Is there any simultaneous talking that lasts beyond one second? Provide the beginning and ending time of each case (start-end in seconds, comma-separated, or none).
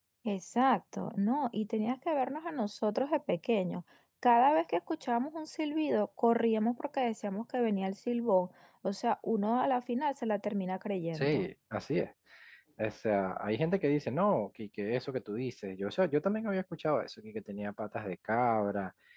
none